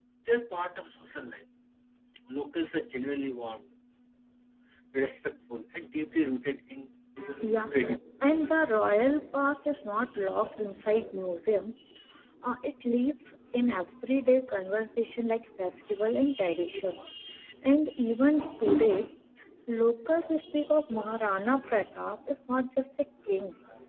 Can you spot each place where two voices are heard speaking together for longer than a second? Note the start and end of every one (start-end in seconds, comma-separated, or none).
none